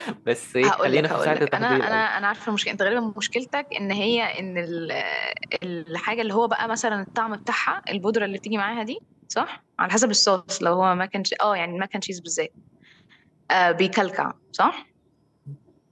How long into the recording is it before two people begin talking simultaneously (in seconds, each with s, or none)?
0.6 s